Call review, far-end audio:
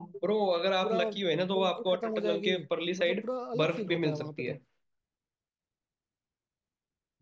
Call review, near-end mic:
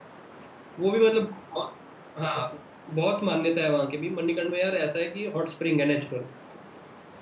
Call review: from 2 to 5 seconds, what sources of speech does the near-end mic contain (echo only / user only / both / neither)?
user only